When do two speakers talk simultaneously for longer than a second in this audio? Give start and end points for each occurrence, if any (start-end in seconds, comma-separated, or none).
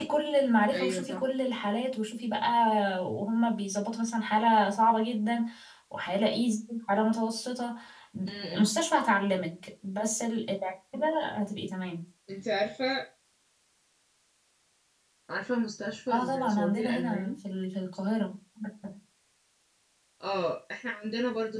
16.1-17.4